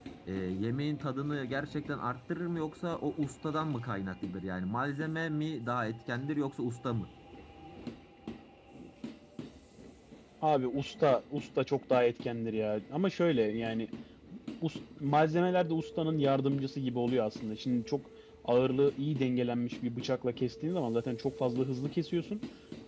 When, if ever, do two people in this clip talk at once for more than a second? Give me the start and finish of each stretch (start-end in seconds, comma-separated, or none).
none